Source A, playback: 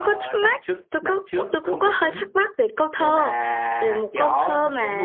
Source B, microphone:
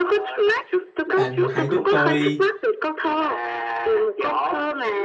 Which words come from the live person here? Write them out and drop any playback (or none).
Bạn hãy giúp tôi